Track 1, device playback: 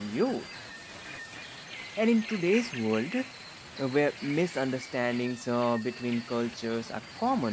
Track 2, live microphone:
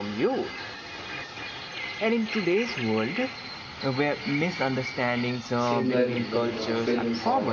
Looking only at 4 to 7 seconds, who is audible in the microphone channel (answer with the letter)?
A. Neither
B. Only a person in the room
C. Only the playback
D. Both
D